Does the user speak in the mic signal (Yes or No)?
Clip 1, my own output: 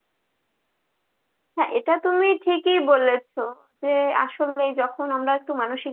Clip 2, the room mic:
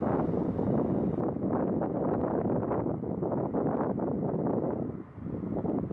No